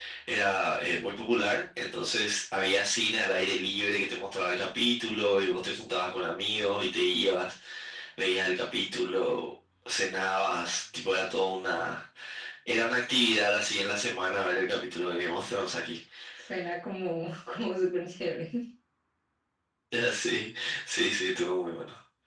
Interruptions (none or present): none